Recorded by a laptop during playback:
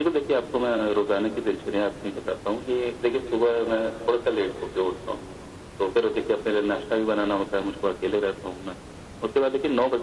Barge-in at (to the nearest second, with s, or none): none